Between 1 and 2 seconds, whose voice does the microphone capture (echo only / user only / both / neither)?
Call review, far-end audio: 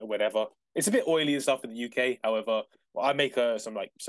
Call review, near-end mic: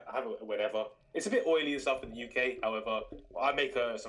echo only